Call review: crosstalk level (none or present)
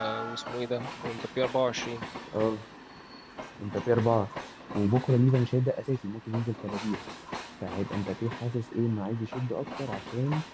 none